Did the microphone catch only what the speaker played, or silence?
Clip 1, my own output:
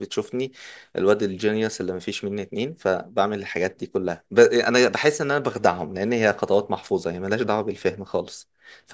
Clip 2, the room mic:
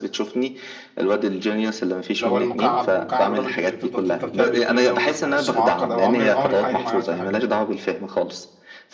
No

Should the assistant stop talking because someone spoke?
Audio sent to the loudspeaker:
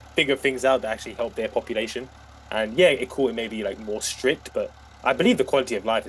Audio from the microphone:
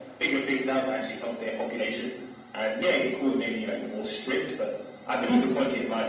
No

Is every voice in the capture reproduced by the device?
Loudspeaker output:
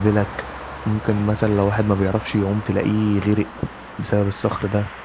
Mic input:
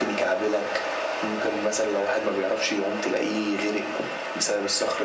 Yes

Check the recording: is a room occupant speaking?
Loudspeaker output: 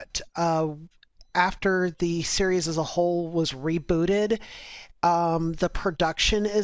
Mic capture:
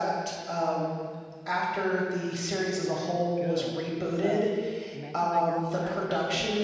Yes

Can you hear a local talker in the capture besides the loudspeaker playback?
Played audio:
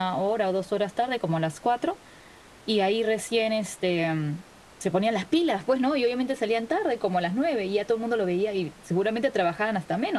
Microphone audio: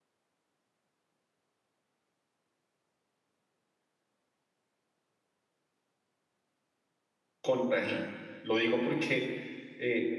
Yes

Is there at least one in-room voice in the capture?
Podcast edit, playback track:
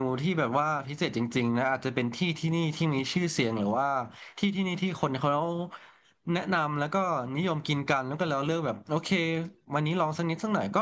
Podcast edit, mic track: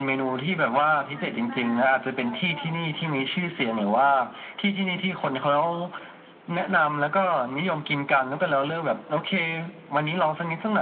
Yes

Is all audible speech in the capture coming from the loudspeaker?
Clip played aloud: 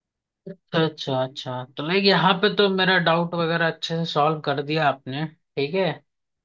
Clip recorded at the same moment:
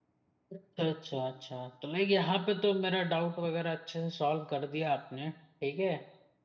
Yes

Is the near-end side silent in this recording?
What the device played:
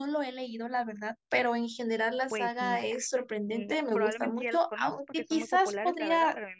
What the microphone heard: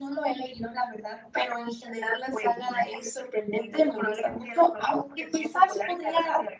Yes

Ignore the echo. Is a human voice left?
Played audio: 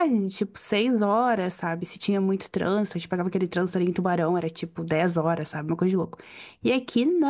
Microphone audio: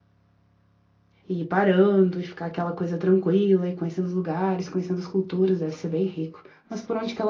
Yes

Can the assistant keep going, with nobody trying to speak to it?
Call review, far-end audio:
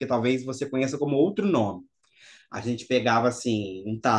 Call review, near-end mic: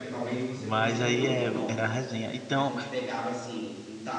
No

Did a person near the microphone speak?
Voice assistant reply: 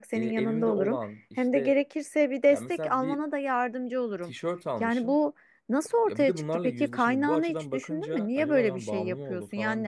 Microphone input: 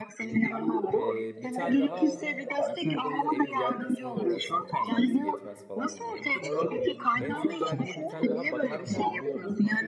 Yes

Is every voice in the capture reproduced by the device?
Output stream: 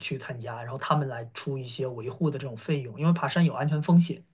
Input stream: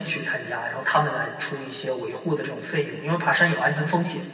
Yes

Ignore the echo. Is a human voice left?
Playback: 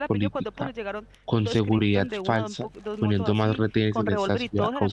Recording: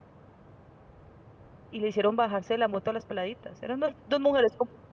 Yes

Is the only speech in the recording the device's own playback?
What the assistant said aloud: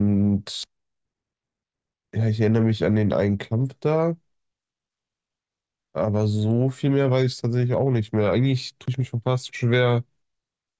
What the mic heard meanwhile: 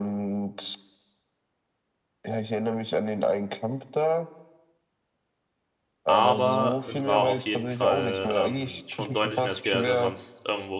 No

